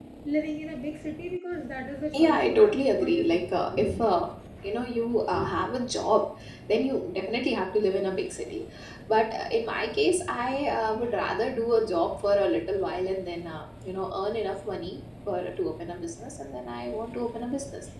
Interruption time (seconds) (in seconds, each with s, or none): 2.1 s